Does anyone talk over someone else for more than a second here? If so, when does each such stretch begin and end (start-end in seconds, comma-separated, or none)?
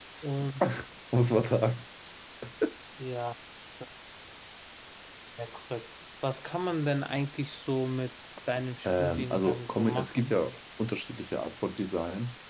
8.8-10.3